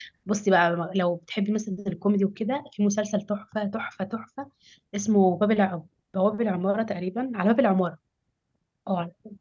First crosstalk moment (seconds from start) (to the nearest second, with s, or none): none